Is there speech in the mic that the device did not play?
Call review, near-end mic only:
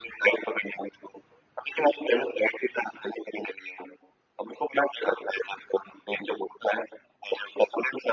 No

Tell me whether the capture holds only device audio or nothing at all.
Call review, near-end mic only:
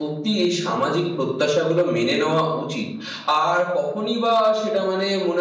No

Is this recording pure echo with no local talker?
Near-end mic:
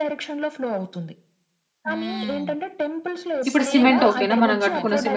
No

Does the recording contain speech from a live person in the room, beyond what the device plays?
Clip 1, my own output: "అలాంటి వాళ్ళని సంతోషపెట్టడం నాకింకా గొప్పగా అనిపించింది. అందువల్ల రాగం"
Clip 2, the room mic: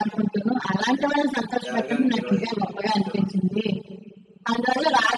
Yes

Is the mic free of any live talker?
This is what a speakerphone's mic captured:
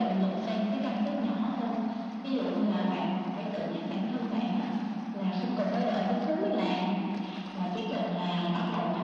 Yes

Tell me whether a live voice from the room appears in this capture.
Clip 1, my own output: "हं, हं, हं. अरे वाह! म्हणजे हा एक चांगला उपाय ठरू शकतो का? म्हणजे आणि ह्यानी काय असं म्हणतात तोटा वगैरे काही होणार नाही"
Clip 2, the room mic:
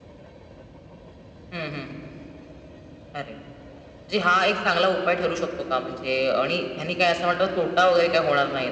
No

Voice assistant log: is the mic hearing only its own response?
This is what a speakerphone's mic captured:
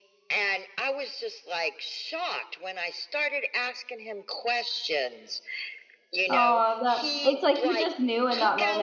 No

